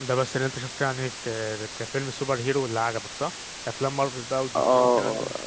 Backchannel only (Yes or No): No